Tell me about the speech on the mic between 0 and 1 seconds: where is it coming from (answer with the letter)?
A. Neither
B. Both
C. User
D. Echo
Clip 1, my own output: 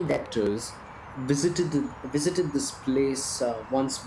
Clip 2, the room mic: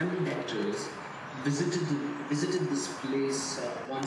D